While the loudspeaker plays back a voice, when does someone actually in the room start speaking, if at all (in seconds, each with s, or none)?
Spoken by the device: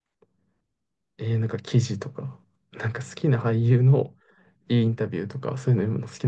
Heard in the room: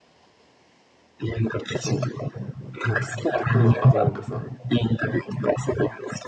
1.7 s